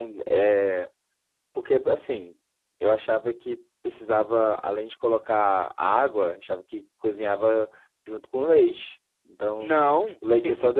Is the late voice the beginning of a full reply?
Yes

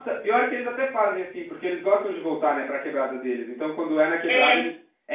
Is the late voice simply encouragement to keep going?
Yes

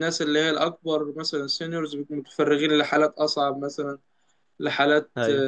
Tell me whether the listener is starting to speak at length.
No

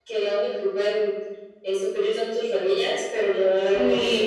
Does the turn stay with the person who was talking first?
No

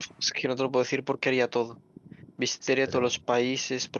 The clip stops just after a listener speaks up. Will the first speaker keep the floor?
Yes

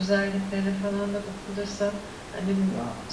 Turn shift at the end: No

